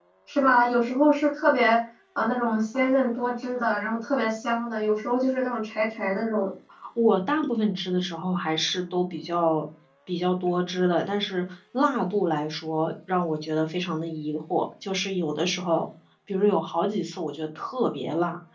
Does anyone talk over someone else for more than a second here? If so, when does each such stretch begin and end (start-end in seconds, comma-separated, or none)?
none